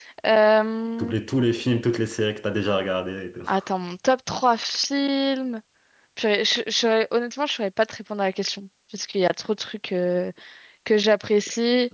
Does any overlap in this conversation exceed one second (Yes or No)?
No